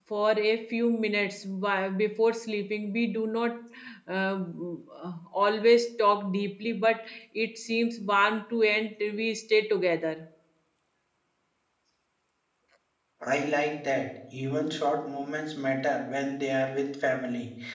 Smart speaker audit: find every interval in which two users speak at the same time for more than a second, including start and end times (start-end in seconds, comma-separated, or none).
none